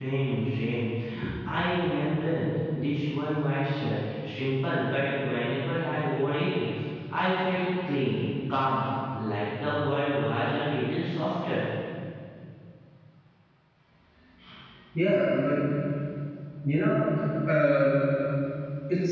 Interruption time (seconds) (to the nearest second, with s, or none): none